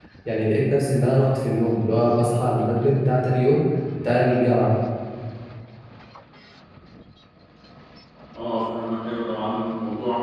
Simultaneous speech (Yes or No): No